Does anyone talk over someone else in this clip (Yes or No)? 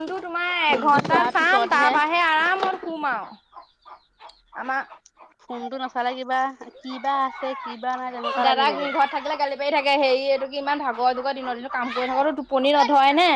Yes